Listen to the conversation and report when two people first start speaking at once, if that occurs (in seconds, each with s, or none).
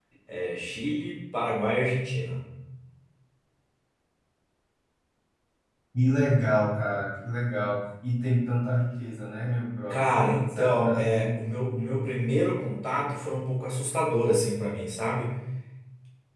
9.9 s